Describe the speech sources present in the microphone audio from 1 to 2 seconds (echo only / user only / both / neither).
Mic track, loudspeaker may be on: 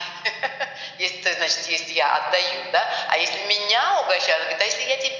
echo only